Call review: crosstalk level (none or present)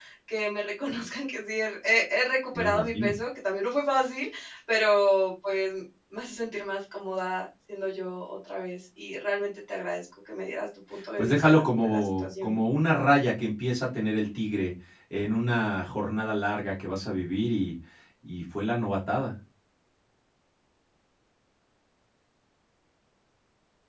present